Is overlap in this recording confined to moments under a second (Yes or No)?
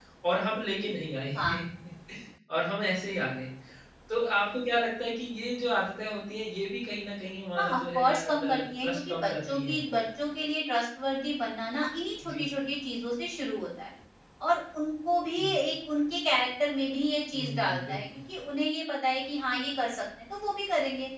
No